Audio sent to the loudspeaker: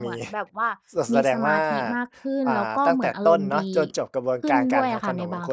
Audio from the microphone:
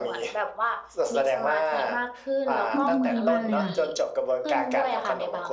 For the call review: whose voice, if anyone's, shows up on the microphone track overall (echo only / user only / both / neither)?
both